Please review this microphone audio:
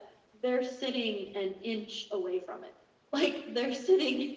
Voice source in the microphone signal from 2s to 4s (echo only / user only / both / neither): echo only